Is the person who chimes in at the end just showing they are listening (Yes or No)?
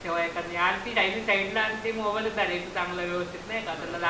No